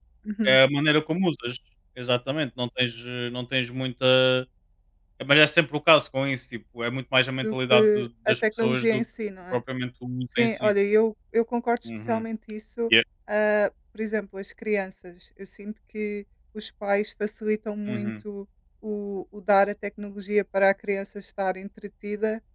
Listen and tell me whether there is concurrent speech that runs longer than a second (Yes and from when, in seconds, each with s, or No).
Yes, from 7.4 s